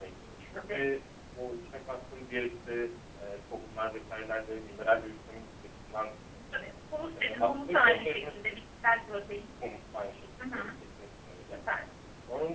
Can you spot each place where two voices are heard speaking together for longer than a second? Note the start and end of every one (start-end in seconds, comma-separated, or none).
7.2-8.5